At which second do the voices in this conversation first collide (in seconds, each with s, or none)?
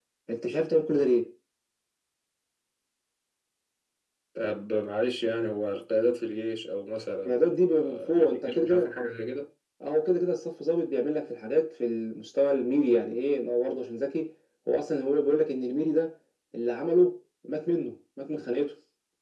7.2 s